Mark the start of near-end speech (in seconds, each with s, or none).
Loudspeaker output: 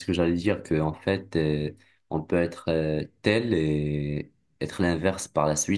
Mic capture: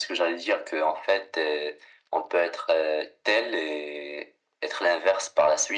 none